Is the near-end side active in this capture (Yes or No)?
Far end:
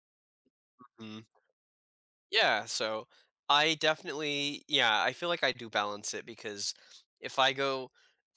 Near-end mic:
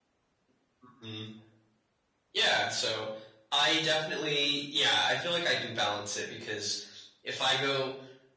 No